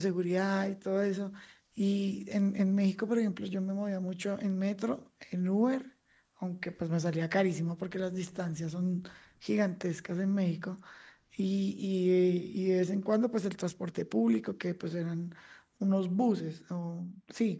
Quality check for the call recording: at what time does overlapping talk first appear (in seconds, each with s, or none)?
none